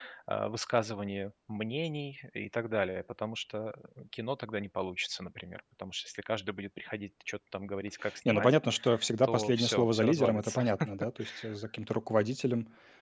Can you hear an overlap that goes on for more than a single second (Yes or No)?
Yes